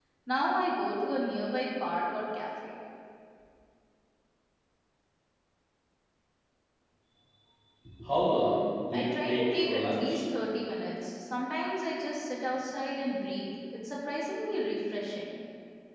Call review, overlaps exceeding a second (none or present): present